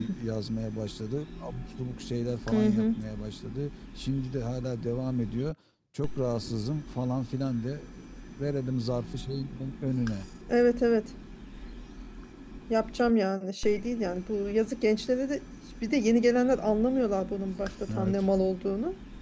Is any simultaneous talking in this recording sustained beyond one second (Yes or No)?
No